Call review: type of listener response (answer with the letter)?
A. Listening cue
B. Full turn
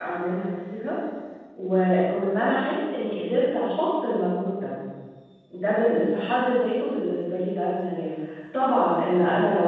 A